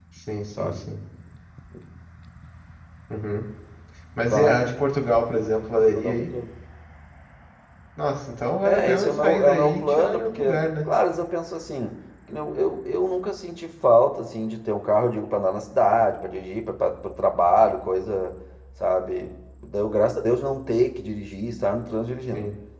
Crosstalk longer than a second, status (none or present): present